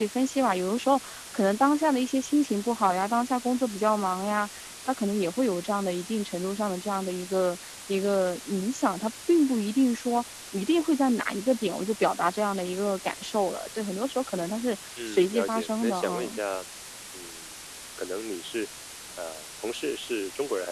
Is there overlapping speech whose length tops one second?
Yes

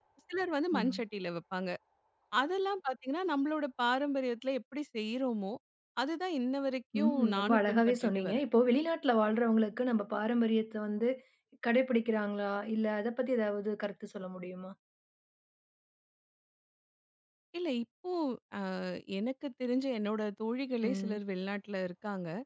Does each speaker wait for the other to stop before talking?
No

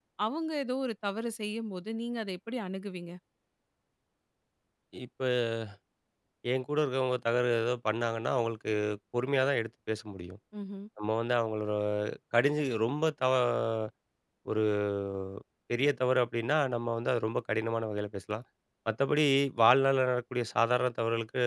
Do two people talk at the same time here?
No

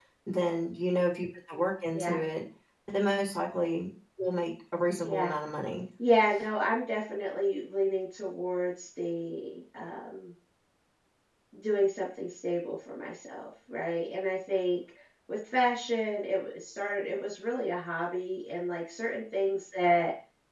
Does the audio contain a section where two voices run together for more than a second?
No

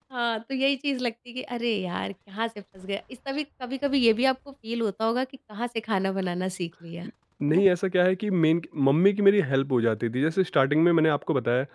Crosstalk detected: No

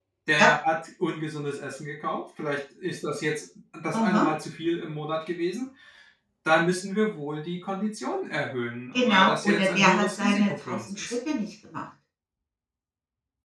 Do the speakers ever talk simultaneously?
Yes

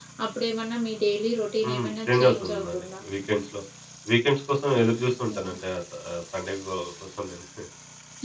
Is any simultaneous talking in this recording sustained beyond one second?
Yes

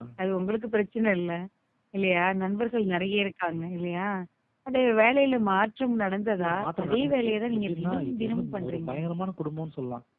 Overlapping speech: Yes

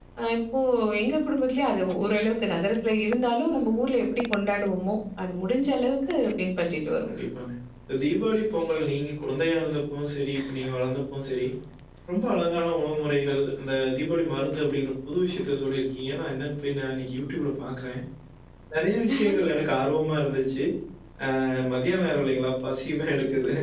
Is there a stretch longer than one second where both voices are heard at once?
No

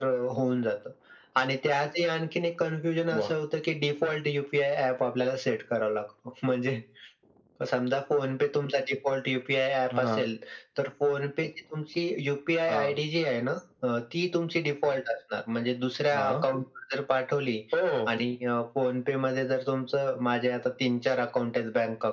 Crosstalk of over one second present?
No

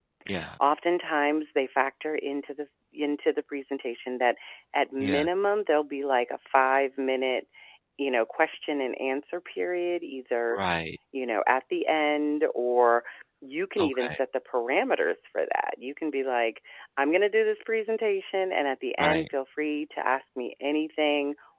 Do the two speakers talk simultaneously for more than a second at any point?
No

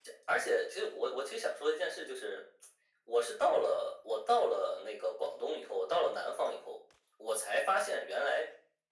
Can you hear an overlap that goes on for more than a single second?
No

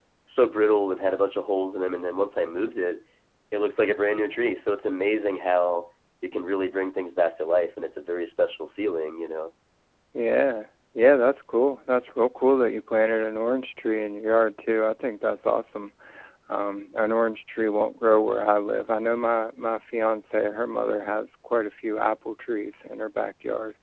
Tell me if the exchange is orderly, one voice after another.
Yes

